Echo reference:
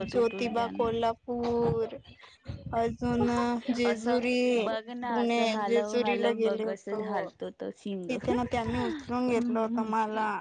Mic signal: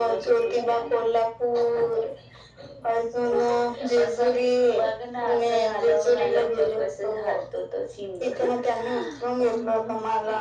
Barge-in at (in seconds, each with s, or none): none